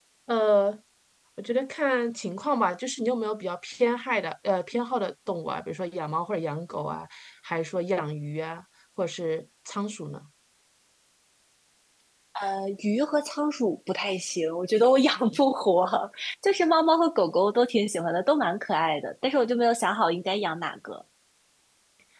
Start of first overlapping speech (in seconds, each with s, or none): none